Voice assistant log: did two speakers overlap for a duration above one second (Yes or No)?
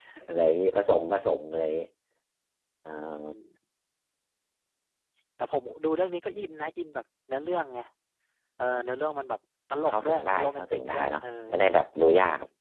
Yes